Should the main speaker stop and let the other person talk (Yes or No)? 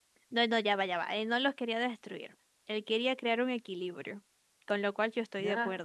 Yes